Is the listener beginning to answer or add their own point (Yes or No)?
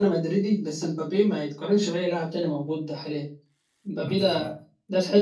No